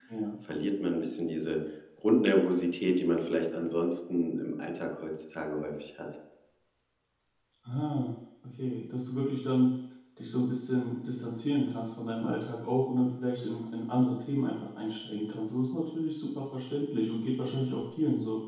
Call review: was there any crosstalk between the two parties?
No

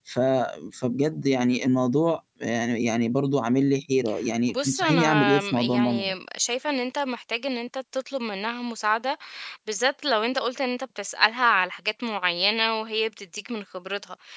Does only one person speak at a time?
No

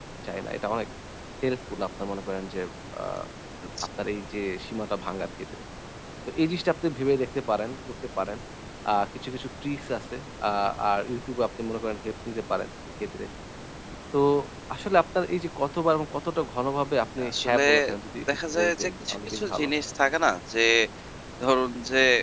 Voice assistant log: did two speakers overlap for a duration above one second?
Yes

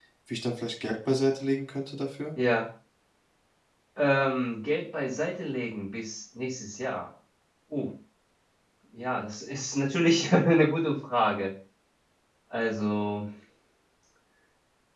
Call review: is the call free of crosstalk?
Yes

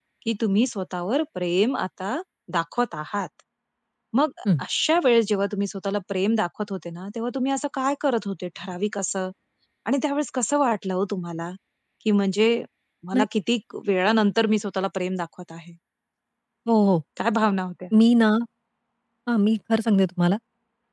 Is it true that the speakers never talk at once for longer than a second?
Yes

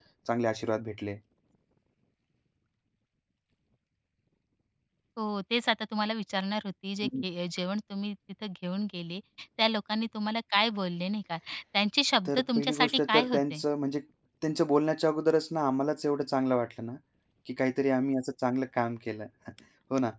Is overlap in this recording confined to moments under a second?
No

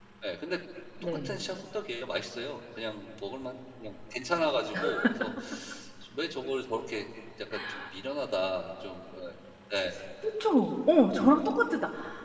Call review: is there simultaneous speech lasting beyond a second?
No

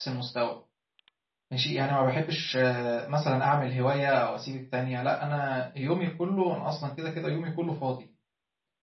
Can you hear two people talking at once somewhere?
No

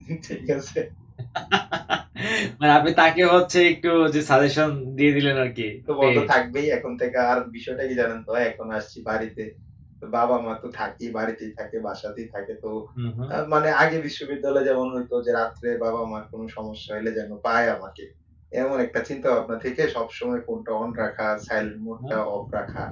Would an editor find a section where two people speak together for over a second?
No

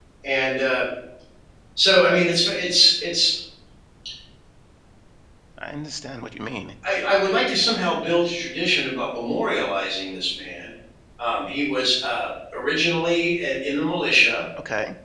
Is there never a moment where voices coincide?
Yes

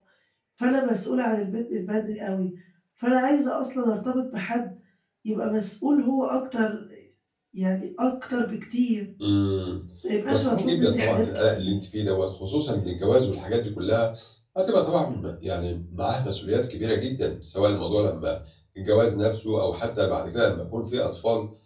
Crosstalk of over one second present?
Yes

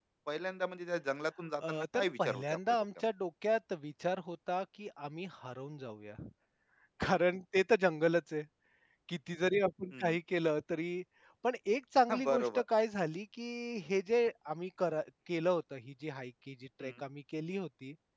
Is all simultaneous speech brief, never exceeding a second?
No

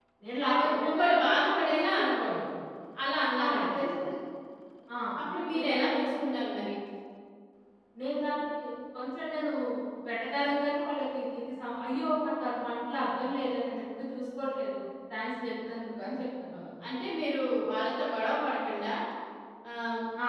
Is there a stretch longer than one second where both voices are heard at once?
Yes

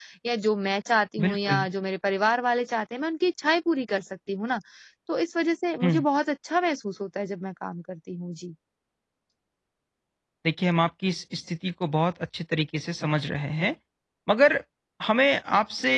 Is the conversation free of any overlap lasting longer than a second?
Yes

